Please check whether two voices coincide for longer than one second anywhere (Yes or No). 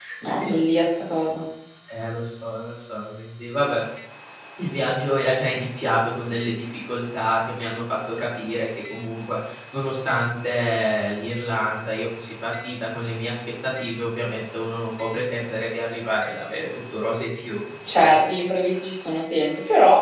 No